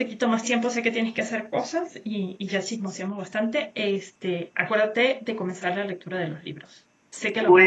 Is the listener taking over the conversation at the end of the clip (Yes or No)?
Yes